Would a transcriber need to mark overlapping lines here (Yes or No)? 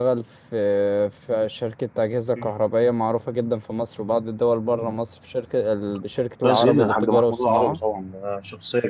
Yes